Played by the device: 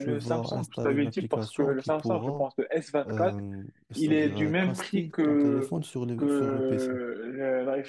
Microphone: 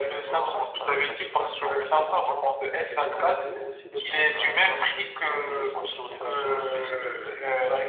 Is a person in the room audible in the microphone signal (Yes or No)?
Yes